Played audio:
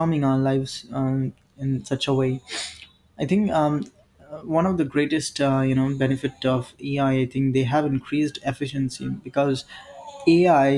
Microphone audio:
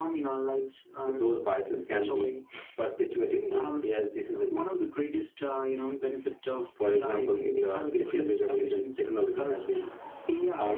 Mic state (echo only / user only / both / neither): both